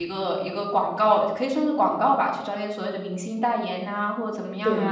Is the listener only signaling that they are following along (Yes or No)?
Yes